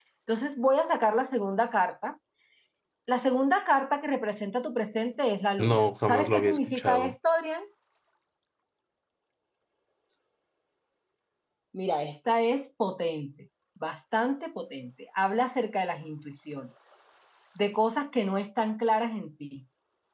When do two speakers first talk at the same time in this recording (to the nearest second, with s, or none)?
6 s